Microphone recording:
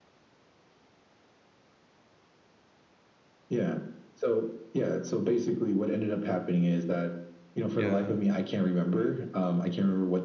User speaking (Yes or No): Yes